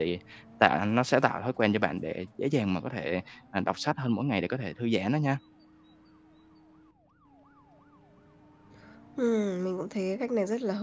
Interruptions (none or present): none